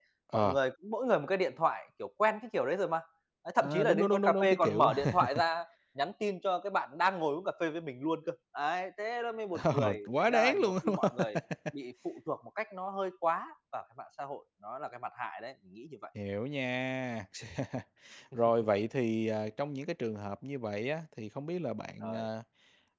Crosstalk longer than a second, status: present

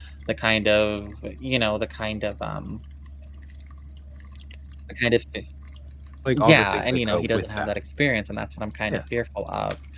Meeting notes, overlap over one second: present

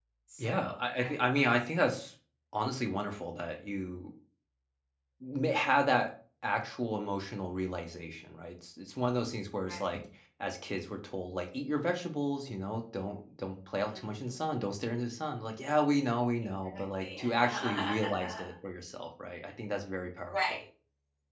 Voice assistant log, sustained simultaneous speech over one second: present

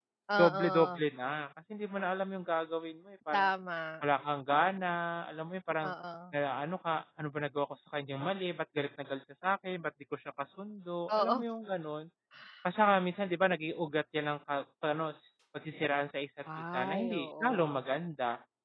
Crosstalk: present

